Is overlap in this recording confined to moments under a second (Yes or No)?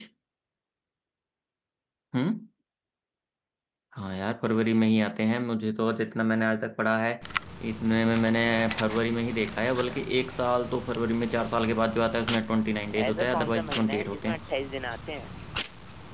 No